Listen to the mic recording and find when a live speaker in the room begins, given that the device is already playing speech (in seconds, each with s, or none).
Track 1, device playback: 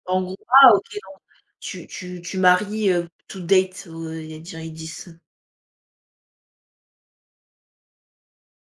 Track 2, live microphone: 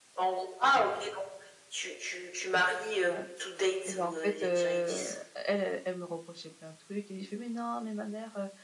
3.0 s